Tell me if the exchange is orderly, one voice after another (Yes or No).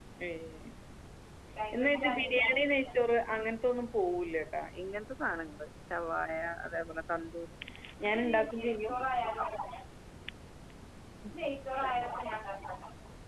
No